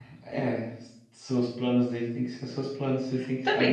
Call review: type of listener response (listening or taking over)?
taking over